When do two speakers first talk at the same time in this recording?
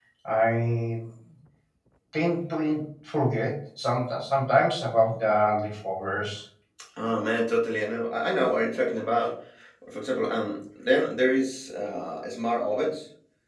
none

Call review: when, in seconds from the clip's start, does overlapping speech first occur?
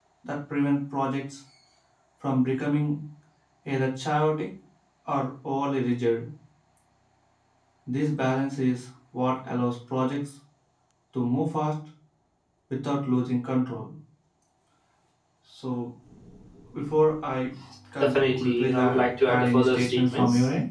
18.0 s

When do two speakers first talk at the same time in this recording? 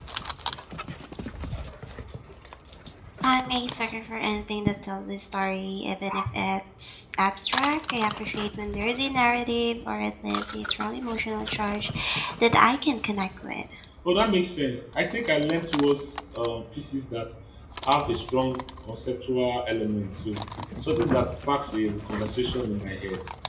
none

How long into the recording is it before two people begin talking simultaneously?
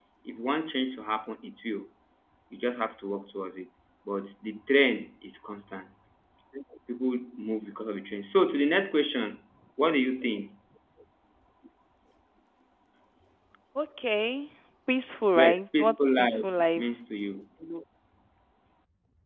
15.3 s

